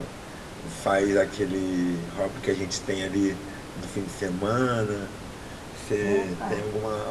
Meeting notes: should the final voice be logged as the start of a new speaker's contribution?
No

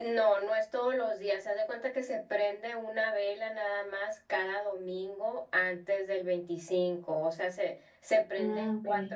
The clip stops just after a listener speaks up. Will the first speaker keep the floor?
Yes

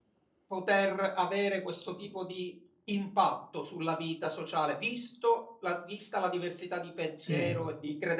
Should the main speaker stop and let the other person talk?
No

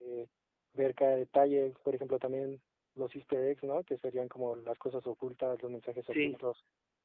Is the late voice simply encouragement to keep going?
Yes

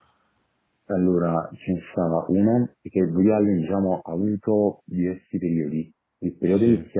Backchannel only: Yes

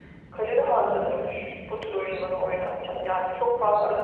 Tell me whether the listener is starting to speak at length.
No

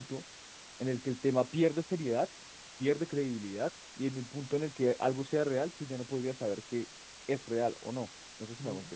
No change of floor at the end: No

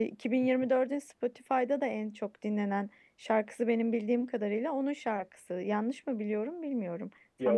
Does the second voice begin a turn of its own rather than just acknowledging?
Yes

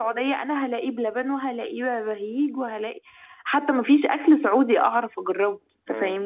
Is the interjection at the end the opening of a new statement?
Yes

